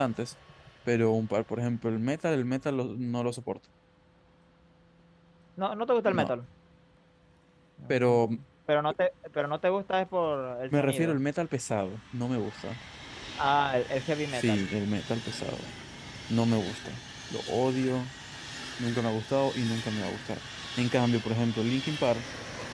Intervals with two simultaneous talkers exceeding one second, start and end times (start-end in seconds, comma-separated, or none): none